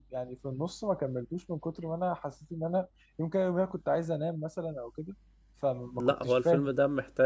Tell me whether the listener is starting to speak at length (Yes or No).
Yes